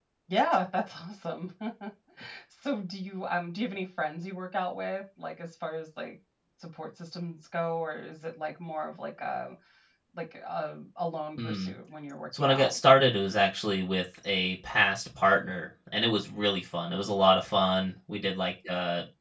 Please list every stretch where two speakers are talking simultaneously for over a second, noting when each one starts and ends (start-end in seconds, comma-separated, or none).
none